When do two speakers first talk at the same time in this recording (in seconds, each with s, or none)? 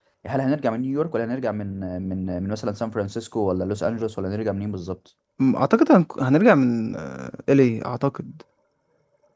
none